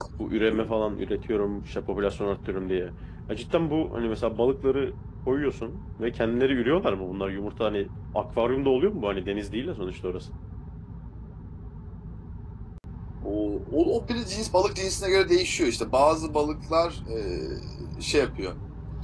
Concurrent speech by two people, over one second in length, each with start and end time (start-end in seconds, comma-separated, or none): none